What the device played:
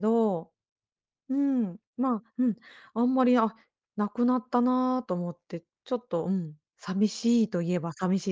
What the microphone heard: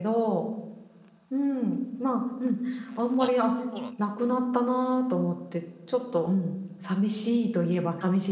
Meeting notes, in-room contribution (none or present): present